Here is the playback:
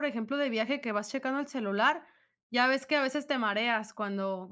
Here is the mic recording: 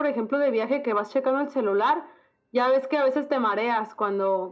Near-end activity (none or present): none